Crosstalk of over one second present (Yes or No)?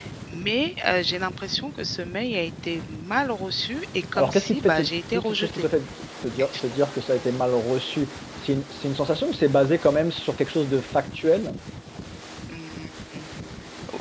Yes